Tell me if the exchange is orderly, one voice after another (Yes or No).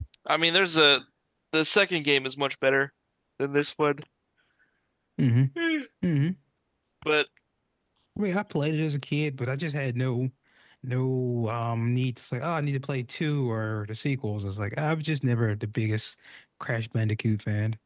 Yes